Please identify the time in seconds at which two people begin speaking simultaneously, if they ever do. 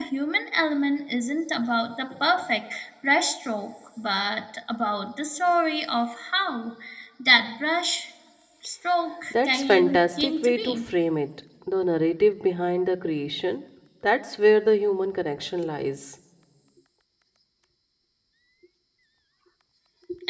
9.3 s

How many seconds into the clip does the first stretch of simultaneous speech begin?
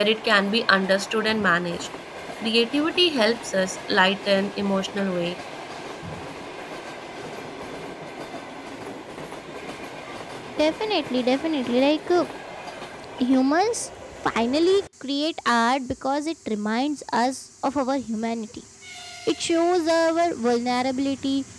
none

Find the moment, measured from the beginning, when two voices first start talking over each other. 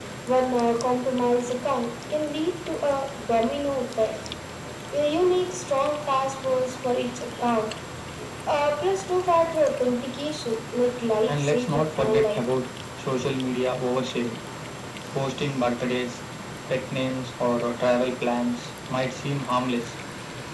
11.3 s

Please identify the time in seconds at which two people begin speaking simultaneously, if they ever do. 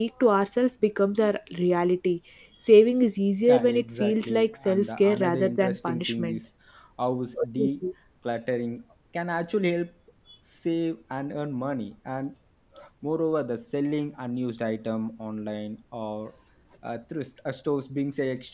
3.5 s

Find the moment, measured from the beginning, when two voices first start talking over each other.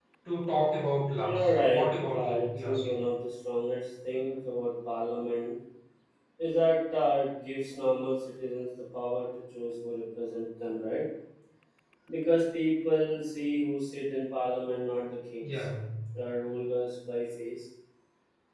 1.3 s

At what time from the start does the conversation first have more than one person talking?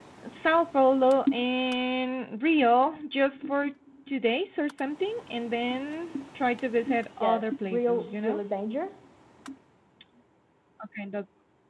7.2 s

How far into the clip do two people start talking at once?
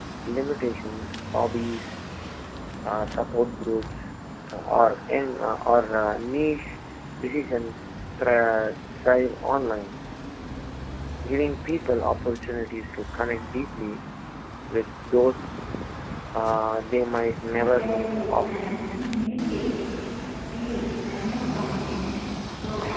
17.5 s

